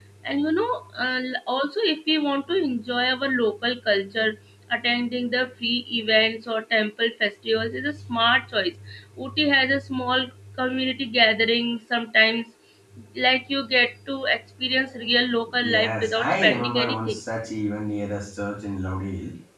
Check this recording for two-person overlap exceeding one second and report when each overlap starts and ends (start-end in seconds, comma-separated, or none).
15.6-17.2